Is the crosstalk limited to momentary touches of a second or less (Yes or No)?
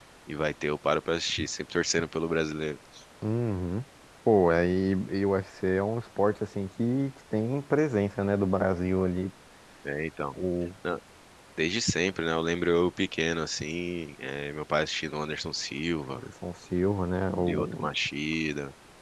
Yes